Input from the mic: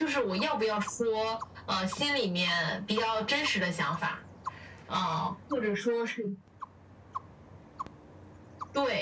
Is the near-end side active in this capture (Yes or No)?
No